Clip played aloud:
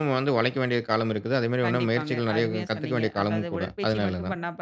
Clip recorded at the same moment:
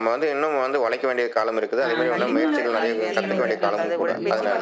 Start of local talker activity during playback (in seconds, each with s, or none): 1.8 s